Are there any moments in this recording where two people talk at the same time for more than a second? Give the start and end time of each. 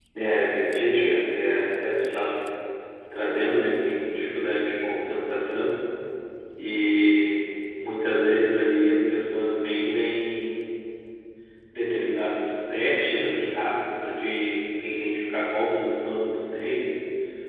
0.7-2.3

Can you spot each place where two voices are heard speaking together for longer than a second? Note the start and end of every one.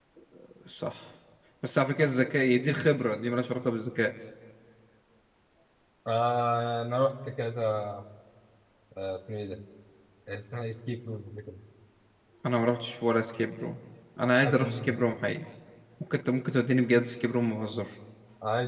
none

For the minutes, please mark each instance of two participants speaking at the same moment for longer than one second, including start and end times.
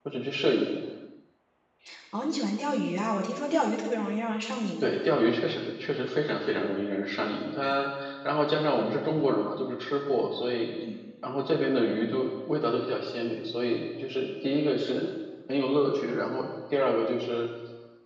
none

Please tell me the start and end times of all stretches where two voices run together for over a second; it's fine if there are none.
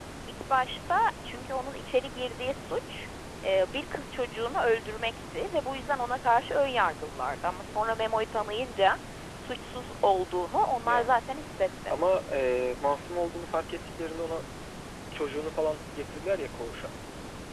none

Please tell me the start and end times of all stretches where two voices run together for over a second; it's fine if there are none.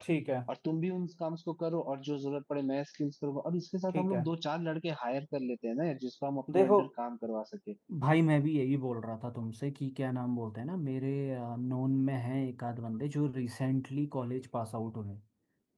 none

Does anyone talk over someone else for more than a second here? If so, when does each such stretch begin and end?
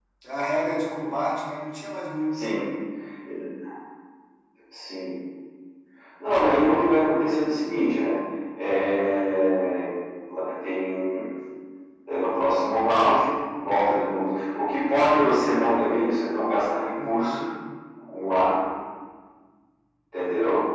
none

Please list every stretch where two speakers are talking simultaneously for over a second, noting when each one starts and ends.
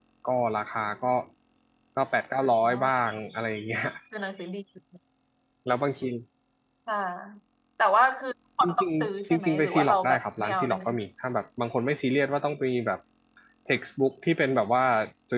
8.6-10.8

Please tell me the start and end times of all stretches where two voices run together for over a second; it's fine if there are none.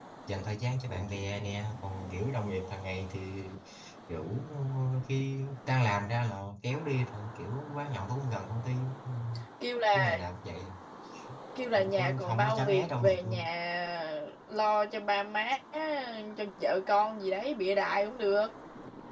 11.8-13.5

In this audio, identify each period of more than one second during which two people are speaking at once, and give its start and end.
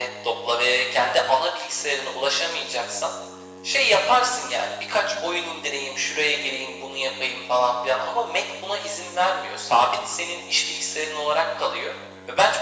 none

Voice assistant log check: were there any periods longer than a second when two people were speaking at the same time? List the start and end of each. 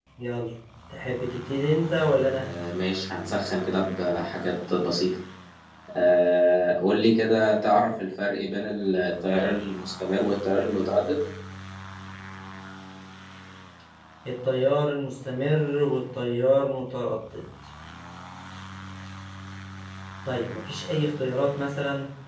none

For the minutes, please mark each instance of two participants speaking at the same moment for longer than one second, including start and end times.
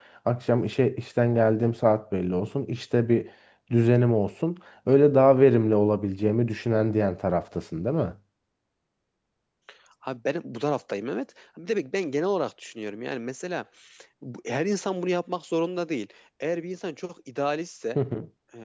none

